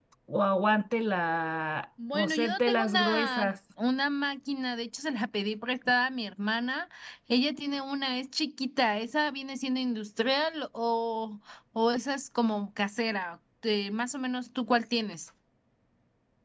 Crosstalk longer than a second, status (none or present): present